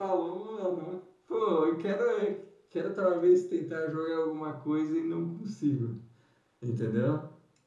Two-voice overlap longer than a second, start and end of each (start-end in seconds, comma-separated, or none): none